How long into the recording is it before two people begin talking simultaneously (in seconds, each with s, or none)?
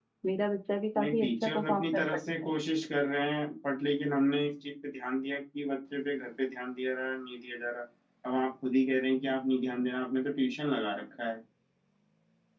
1.0 s